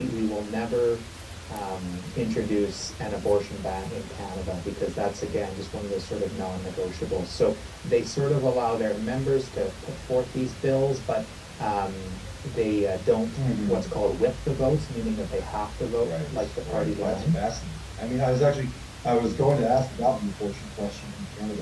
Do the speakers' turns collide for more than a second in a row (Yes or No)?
Yes